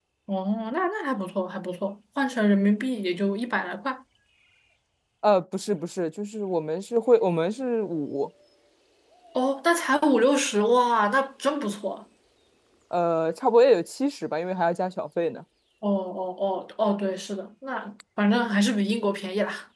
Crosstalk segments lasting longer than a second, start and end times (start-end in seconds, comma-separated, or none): none